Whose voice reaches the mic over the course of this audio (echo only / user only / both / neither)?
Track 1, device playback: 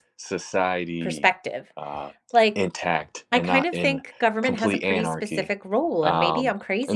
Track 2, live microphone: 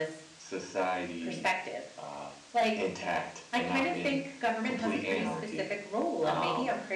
echo only